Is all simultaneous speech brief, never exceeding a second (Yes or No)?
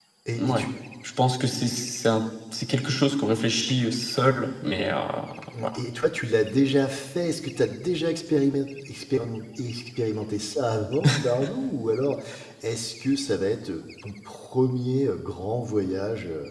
Yes